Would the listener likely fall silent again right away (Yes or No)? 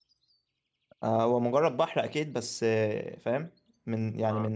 Yes